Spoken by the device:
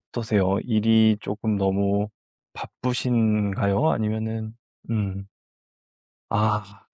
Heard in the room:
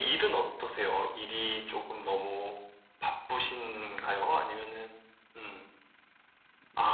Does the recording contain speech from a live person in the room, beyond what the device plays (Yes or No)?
No